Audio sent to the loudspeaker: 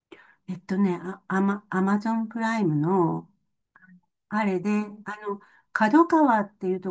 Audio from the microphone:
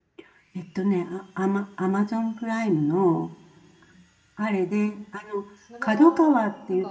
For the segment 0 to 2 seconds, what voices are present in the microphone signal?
echo only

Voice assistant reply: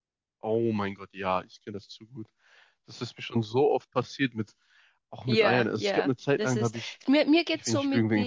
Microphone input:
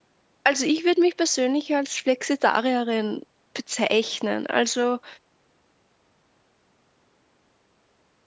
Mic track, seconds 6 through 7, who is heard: neither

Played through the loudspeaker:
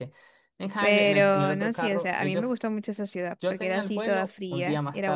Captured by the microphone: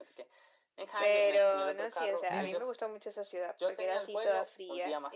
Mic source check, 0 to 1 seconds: echo only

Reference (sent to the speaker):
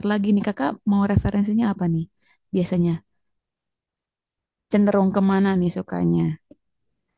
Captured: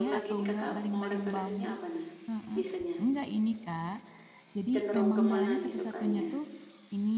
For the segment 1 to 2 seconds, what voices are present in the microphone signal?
both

